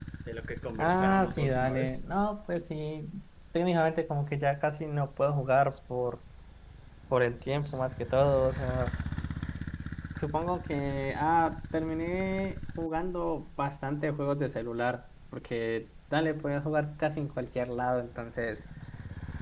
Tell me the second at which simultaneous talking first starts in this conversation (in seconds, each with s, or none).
0.8 s